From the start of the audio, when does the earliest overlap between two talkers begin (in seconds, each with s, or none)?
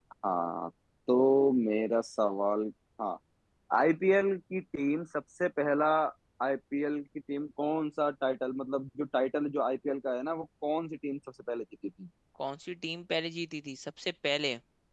none